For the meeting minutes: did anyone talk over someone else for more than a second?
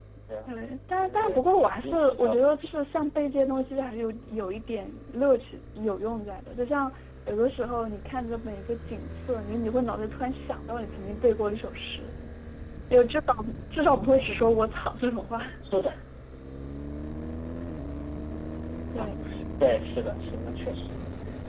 Yes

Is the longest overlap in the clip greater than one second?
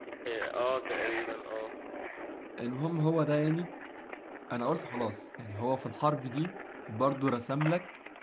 No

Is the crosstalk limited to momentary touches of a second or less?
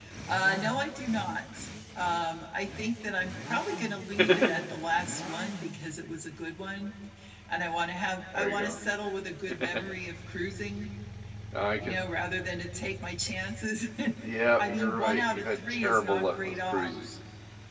No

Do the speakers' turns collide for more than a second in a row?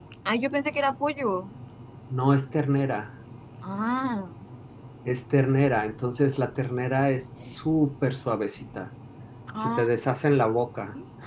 No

